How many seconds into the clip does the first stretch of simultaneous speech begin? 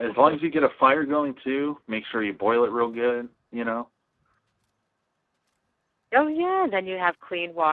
none

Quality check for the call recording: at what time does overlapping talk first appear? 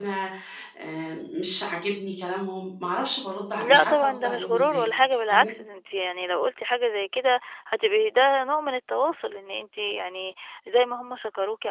3.5 s

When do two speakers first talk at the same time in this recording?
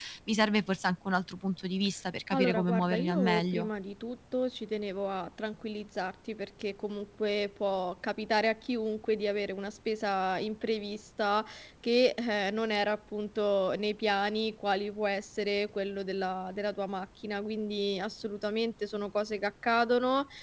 2.3 s

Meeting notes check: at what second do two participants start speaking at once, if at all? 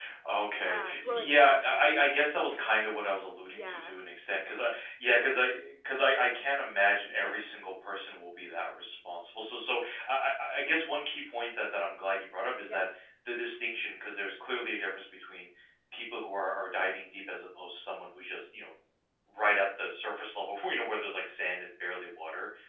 0.6 s

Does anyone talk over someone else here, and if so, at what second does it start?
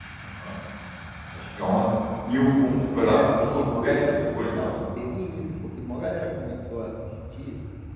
2.9 s

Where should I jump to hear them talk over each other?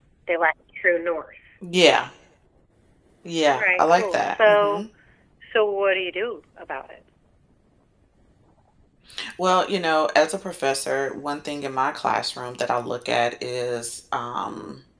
3.5 s

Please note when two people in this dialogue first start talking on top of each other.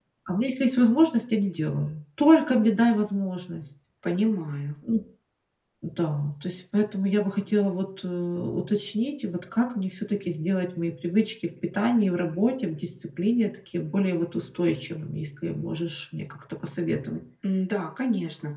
none

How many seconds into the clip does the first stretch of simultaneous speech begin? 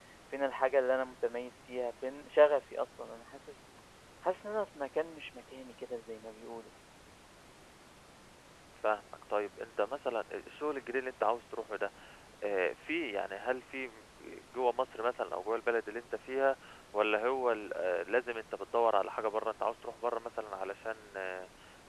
none

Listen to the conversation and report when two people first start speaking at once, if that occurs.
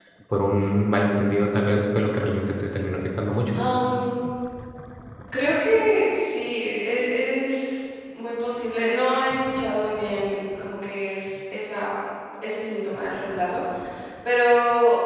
none

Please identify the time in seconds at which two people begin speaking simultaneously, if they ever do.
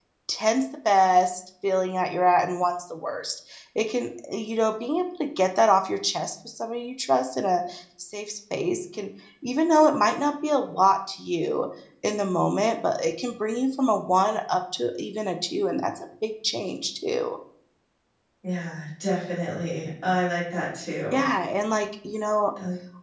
none

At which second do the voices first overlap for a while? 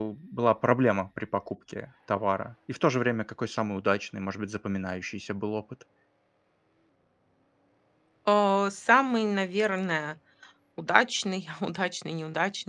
none

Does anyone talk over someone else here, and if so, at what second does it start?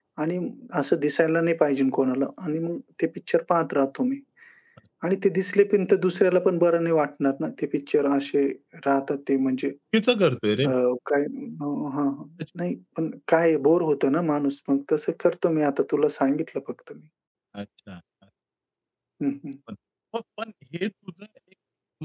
none

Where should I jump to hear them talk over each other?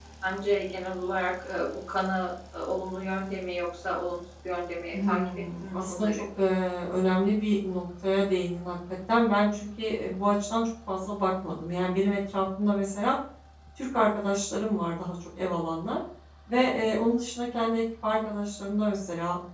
4.9 s

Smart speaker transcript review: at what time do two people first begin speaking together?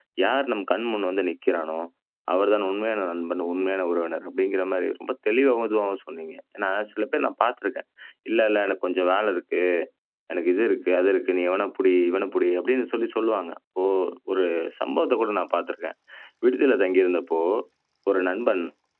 none

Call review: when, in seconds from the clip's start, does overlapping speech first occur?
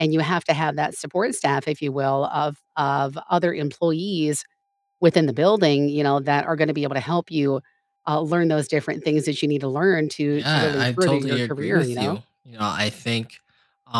10.4 s

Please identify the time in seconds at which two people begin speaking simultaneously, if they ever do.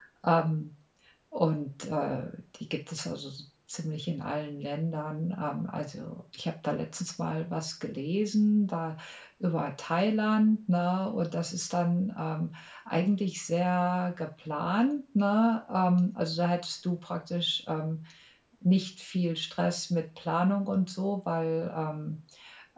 none

